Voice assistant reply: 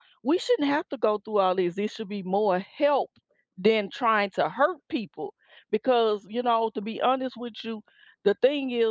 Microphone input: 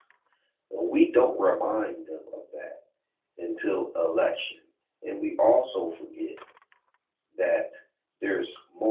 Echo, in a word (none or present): none